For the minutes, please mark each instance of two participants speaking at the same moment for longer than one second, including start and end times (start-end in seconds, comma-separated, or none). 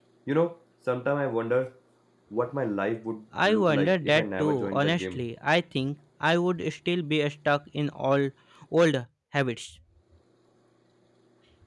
3.5-5.3